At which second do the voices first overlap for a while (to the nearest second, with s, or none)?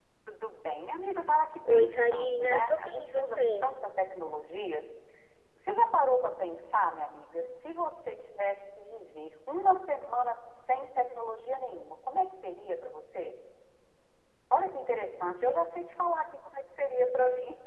2 s